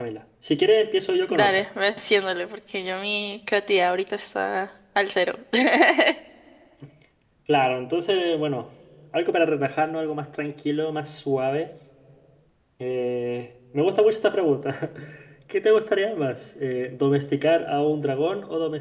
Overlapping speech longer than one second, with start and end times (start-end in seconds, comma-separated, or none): none